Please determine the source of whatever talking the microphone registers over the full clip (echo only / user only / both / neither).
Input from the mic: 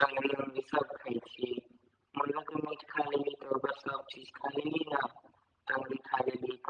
echo only